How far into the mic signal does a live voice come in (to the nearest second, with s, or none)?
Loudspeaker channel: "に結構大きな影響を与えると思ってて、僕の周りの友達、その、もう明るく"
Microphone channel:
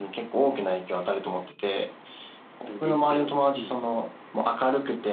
3 s